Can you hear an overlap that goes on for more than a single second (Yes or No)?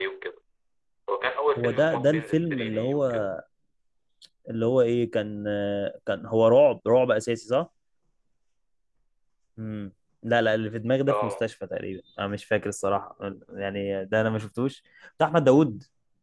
Yes